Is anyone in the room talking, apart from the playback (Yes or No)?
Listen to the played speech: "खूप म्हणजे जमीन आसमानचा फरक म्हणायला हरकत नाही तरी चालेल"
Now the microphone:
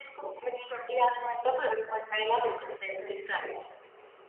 No